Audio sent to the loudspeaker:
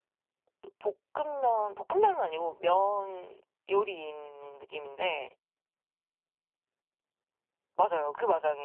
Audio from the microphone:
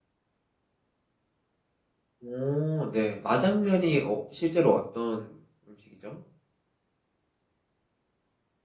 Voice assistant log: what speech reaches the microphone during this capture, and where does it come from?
user only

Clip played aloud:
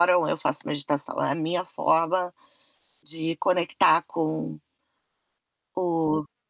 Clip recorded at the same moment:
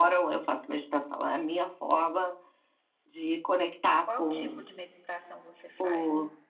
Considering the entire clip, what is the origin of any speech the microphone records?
both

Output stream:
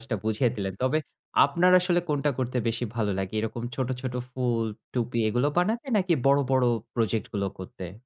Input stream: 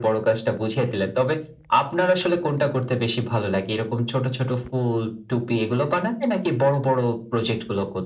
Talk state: echo only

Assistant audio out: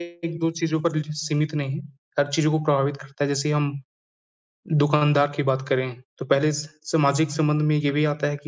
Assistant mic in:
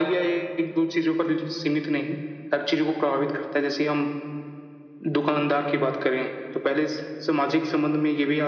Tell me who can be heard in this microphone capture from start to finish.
echo only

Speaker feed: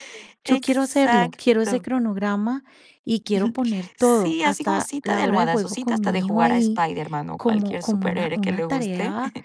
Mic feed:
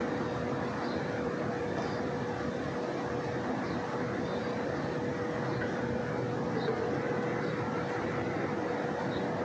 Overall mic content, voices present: neither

